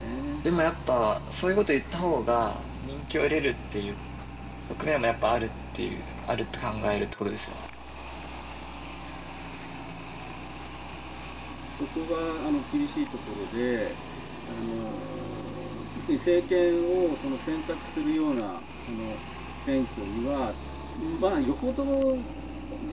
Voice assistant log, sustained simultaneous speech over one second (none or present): none